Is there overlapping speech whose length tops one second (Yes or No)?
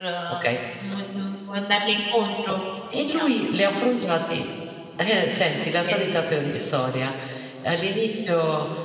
No